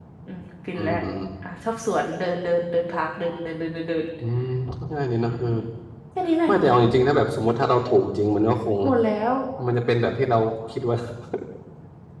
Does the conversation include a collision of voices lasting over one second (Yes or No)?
No